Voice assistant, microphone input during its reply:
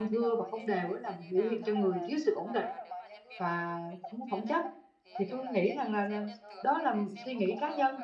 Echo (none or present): present